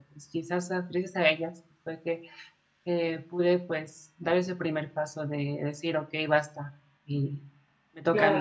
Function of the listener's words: taking over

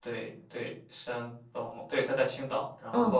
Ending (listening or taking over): listening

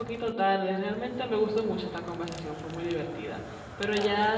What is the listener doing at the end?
listening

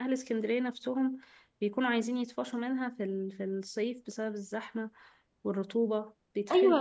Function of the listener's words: taking over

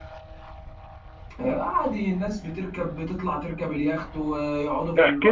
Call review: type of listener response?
taking over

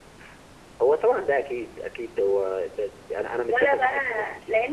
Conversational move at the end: taking over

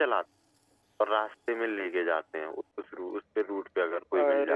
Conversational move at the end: taking over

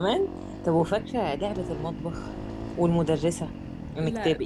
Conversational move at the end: listening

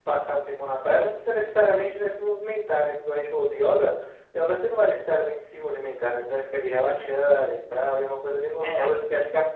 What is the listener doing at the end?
listening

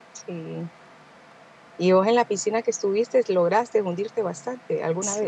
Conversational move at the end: taking over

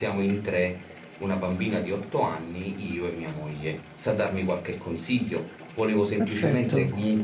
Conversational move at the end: listening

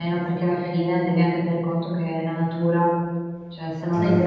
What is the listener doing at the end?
listening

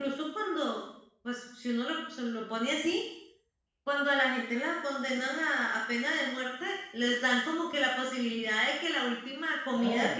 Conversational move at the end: listening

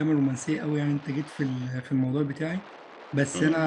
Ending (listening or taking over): listening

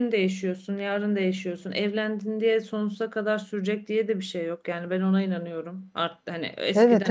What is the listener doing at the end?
listening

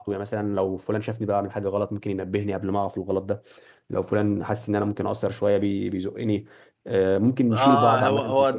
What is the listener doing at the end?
taking over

